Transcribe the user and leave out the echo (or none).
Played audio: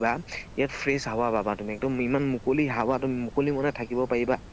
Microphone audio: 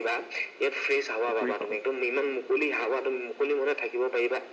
কুকুৰীক